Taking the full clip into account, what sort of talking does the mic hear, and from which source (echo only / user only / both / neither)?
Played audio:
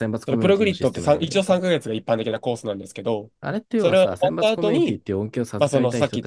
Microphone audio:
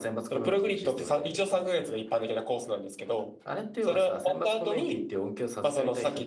echo only